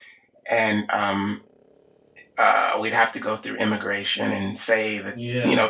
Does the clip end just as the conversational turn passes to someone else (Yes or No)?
No